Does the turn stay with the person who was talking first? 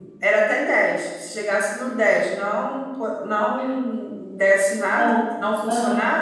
Yes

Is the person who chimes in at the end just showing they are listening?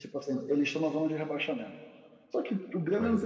Yes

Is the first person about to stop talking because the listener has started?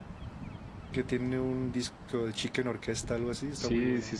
Yes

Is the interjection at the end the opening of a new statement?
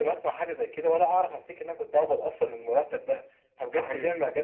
No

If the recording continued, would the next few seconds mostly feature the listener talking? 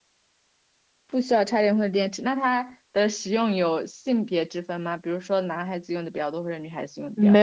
Yes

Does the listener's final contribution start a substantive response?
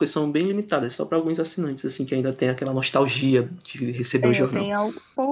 Yes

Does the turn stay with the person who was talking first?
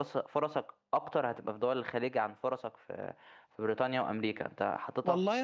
No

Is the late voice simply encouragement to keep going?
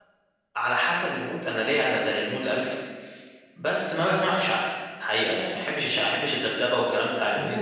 No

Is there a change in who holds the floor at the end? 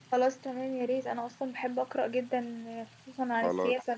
Yes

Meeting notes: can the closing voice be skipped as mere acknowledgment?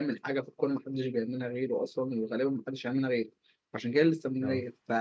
Yes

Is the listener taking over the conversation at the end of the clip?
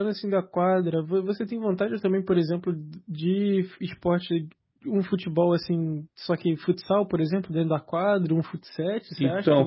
Yes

